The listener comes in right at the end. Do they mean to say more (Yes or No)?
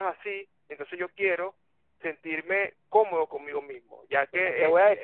Yes